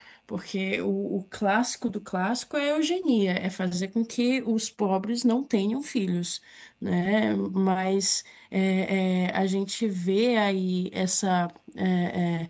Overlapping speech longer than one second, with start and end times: none

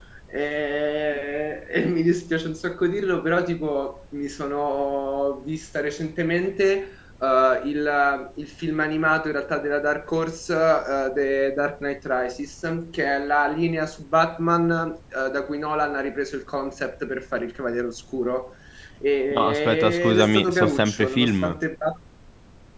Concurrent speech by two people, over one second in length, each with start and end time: 19.4-21.6

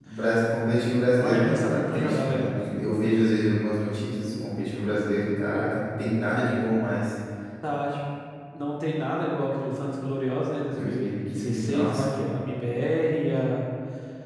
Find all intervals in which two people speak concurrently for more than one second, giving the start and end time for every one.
1.2-2.6, 10.6-12.0

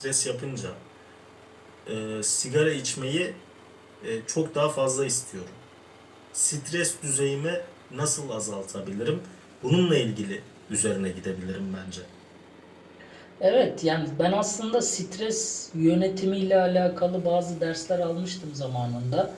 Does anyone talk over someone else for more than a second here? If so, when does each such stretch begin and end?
none

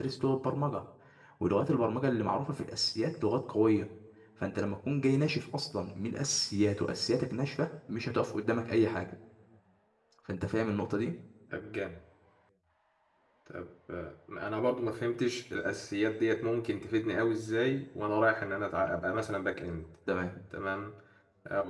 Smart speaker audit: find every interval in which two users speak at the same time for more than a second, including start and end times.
none

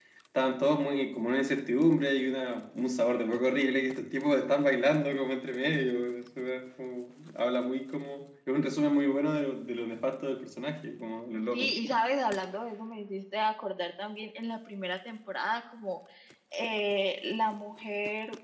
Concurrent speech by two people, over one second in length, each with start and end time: none

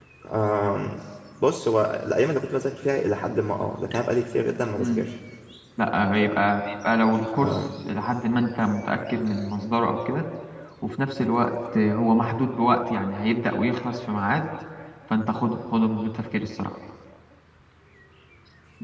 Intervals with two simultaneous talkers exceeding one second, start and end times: none

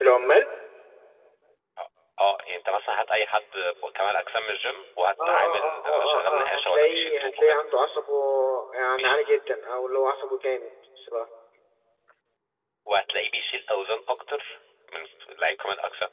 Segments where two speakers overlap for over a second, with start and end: 5.3-7.6

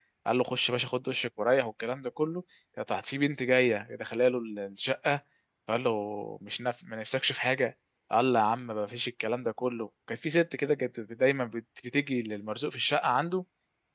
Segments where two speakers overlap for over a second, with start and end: none

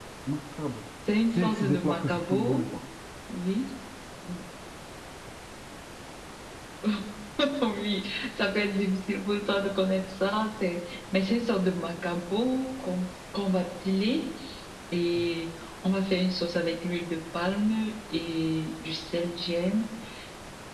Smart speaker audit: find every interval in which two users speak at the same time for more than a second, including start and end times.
1.3-2.7

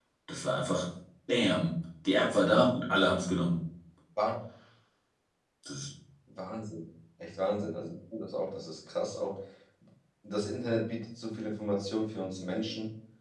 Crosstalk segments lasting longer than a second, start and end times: none

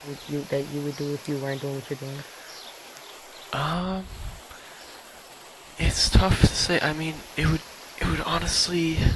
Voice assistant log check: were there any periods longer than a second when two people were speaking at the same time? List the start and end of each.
none

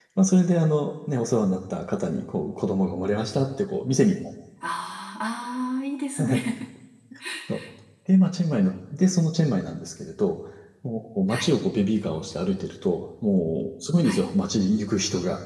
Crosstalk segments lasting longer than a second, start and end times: none

